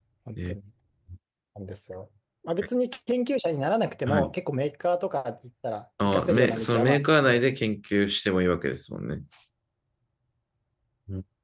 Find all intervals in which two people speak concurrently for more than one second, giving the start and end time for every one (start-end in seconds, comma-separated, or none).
6.0-7.4